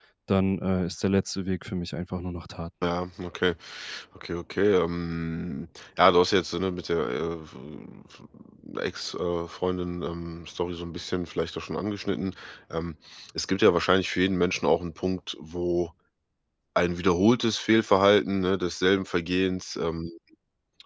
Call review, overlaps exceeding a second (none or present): none